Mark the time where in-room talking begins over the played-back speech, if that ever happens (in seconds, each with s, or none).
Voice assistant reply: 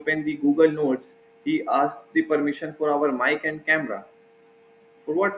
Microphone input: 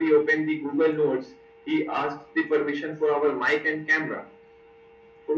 none